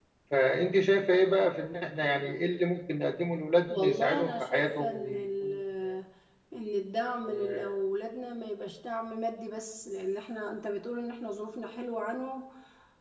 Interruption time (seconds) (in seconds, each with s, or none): 3.7 s